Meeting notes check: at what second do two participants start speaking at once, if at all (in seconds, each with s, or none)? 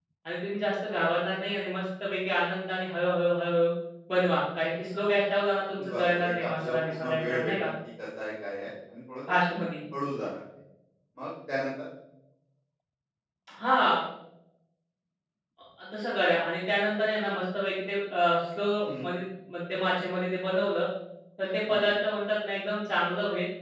5.9 s